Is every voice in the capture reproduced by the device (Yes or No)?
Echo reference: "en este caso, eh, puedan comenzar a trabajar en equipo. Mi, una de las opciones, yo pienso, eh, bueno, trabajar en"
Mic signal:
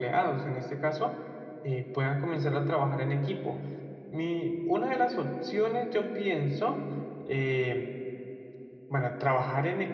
Yes